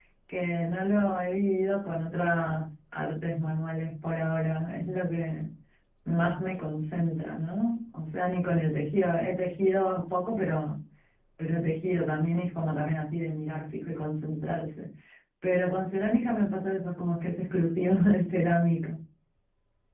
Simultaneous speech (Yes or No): No